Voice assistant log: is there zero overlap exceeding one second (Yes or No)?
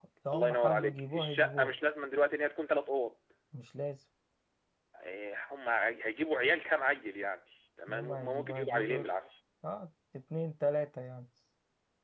No